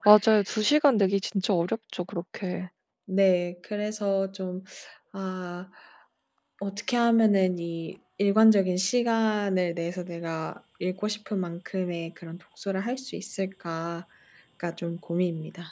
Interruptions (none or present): none